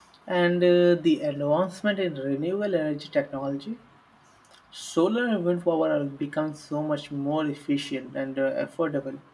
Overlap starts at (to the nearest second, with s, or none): none